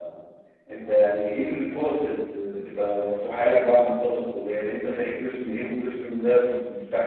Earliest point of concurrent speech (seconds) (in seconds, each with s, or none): none